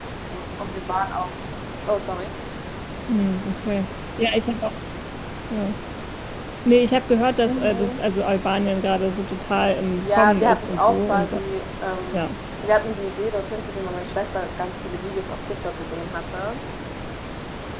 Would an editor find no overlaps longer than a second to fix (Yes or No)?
No